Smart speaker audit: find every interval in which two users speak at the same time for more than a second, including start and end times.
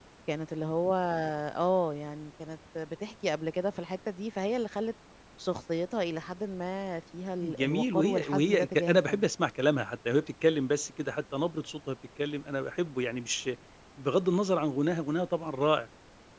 7.4-9.2

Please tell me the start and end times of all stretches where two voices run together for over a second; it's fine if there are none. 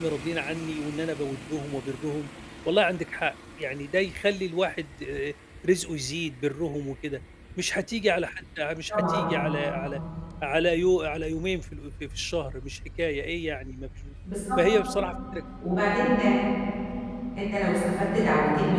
none

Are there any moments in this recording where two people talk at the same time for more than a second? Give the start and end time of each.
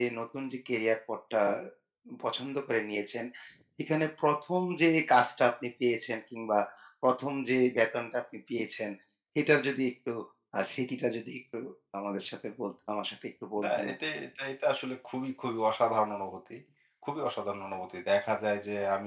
none

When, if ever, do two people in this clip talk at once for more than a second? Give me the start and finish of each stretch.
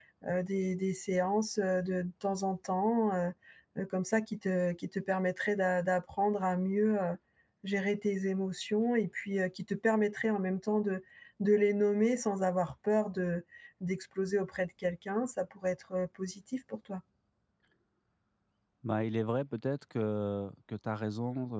none

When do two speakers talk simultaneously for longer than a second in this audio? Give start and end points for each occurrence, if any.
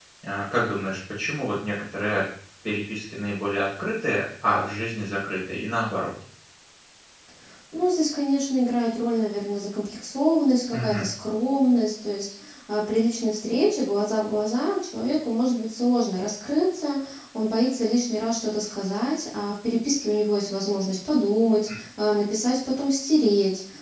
none

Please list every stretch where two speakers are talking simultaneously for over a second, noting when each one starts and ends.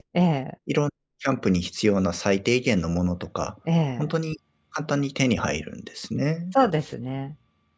none

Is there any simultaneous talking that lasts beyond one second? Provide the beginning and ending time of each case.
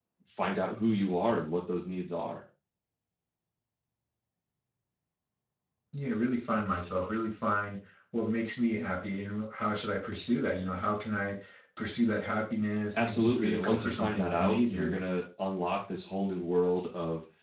12.9-15.0

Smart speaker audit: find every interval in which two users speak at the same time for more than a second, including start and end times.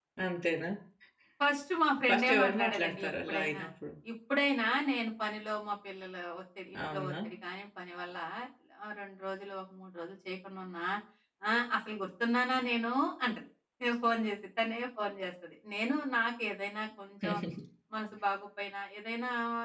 2.1-3.6

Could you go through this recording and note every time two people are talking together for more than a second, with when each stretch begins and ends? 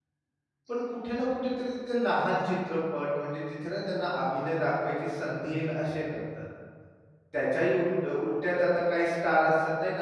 none

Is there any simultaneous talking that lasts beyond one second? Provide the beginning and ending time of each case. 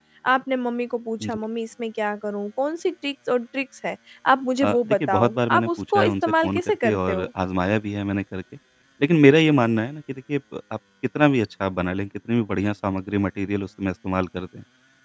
4.6-7.3

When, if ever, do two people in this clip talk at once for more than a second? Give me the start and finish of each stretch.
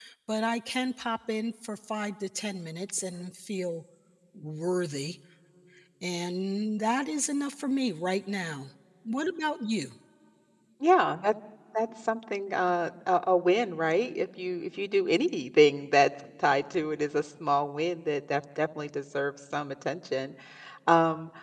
none

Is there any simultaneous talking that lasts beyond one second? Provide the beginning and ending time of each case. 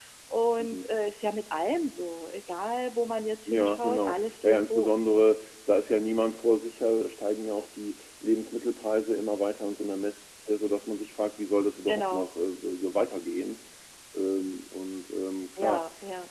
3.5-5.2

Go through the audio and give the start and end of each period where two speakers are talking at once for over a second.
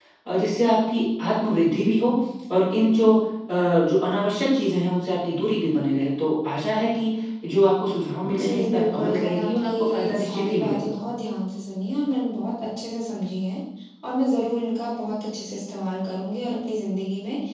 8.3-10.9

